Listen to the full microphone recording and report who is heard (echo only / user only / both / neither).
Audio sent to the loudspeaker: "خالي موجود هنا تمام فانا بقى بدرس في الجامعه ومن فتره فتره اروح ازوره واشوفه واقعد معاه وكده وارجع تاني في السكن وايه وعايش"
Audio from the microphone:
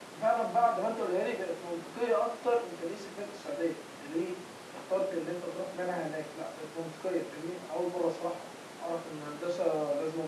user only